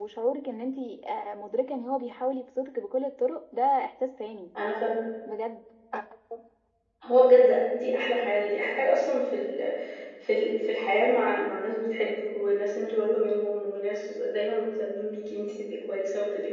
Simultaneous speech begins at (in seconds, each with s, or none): none